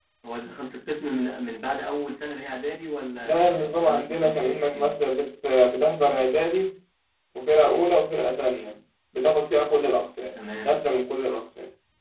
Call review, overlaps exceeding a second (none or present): present